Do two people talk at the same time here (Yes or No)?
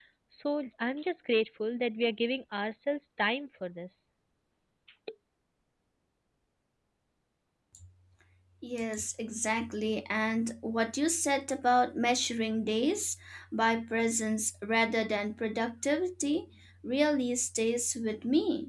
No